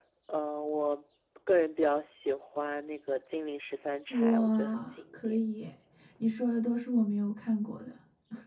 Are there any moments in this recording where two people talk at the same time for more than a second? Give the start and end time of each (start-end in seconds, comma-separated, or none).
4.1-5.4